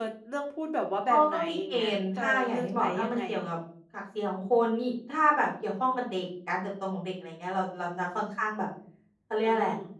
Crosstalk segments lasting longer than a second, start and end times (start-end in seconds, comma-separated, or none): 1.1-3.2